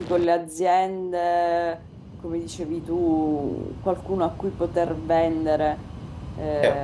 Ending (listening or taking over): taking over